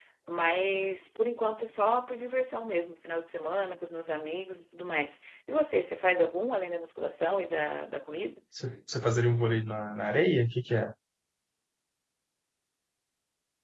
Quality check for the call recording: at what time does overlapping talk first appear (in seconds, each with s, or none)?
none